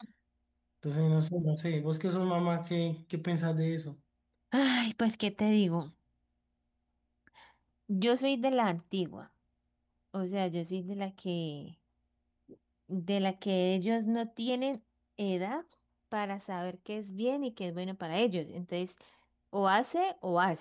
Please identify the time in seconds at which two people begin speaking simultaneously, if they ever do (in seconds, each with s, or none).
none